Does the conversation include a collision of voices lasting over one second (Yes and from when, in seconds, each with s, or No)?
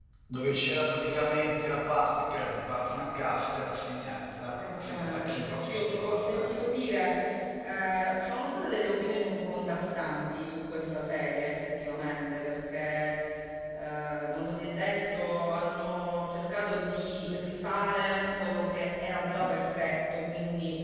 Yes, from 4.6 s